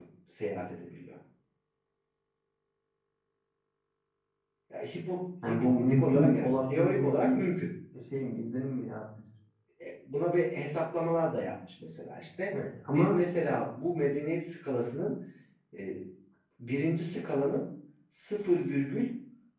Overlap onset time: 5 s

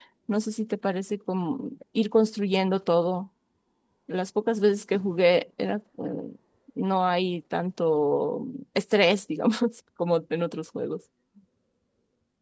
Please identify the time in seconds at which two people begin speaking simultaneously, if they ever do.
none

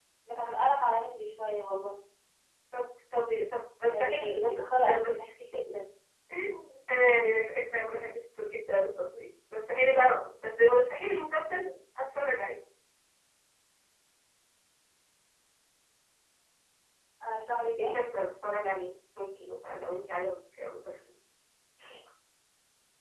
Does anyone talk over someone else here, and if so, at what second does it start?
4 s

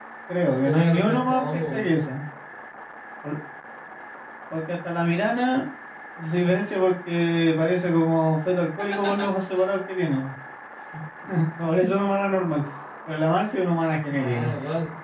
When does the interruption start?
1 s

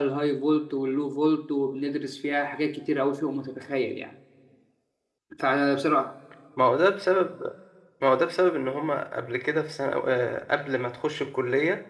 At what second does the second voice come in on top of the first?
none

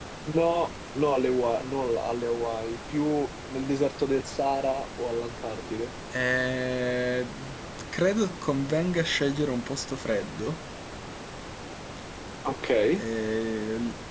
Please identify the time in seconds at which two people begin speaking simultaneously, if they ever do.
none

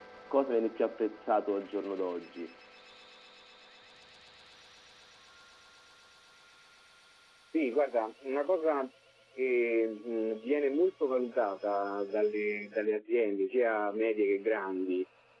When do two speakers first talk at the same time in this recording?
none

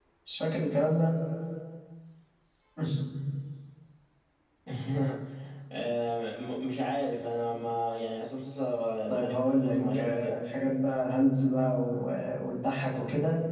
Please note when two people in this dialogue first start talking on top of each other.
9 s

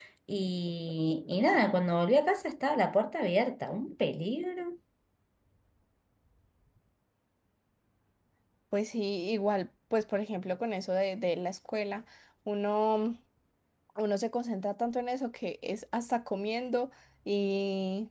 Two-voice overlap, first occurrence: none

